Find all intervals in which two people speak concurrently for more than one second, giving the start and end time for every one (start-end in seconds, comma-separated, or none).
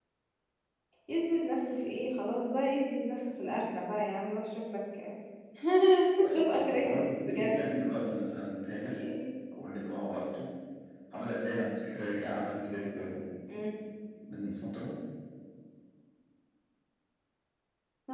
6.3-7.6